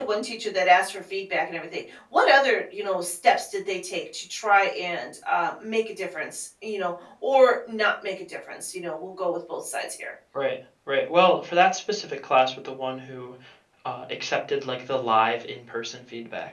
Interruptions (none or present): none